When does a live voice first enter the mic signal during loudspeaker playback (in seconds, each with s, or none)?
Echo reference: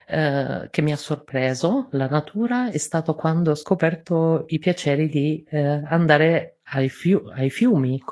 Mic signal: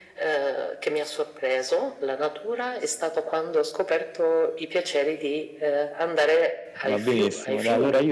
6.8 s